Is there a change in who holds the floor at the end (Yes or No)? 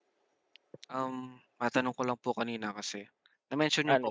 No